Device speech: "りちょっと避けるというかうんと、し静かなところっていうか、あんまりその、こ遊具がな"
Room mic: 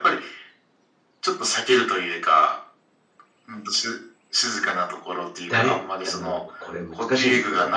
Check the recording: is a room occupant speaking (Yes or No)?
Yes